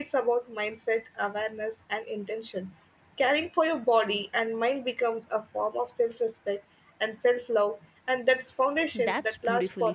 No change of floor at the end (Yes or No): No